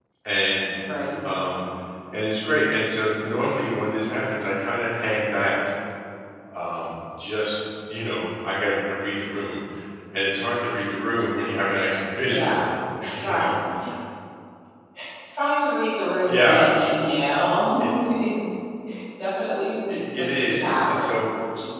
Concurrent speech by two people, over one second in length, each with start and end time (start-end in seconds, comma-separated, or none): 19.9-21.3